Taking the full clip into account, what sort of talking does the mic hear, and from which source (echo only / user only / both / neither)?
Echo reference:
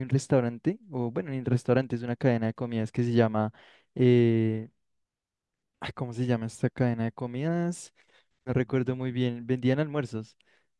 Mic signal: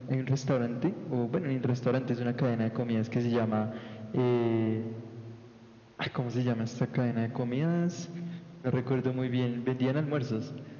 echo only